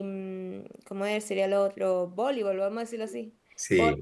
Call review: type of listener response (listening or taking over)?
listening